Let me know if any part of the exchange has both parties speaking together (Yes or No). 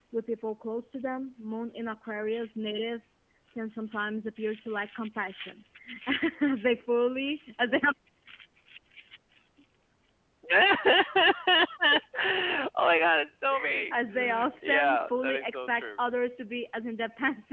Yes